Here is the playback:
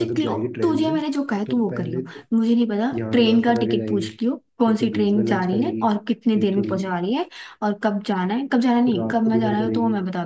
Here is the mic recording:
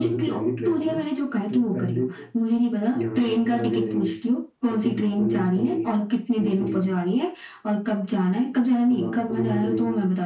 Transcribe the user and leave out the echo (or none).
none